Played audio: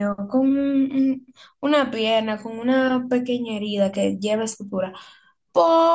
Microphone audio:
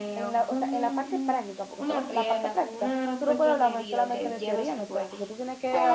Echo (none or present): present